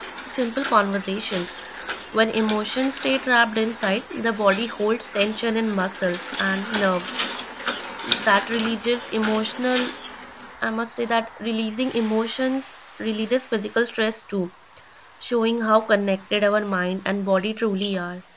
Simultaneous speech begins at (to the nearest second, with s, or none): none